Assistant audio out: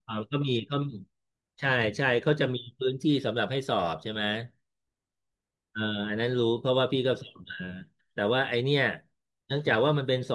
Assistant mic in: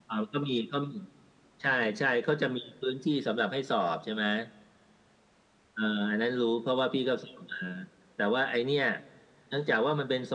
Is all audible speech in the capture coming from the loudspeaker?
Yes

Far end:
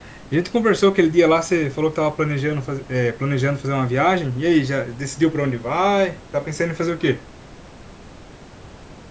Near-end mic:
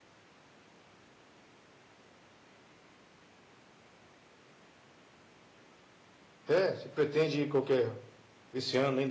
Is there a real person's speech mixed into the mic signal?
Yes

